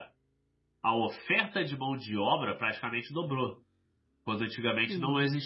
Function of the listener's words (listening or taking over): listening